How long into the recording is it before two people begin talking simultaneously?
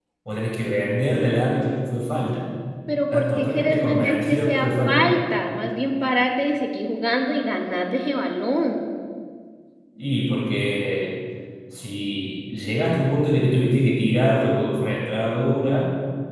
3.1 s

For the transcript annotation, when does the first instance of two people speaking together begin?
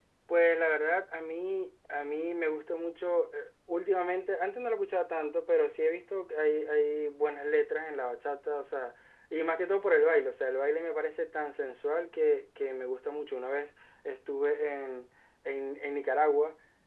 none

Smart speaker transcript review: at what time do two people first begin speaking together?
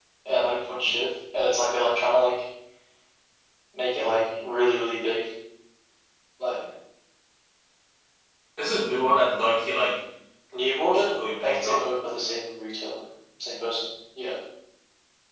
10.5 s

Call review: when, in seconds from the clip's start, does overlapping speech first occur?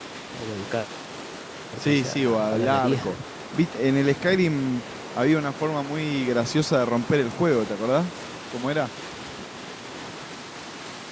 1.8 s

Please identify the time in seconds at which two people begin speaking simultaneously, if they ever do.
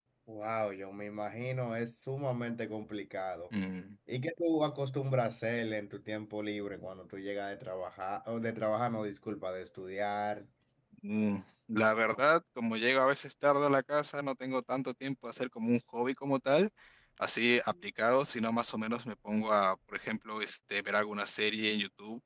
none

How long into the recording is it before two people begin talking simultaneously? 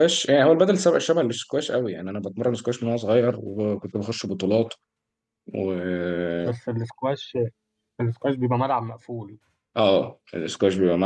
none

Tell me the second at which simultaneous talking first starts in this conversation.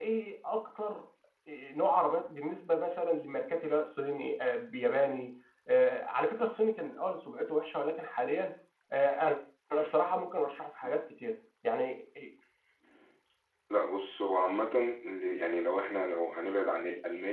none

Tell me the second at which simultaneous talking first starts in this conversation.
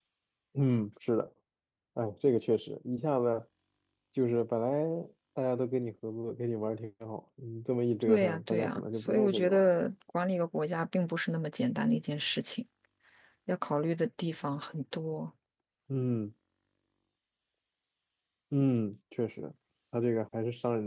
8.0 s

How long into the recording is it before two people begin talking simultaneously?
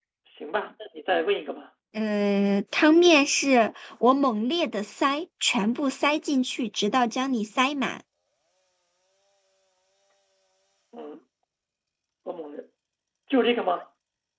none

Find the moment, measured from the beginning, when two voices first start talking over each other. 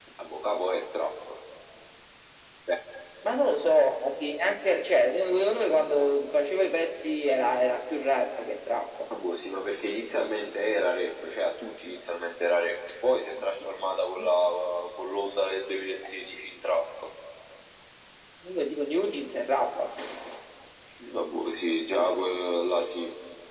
none

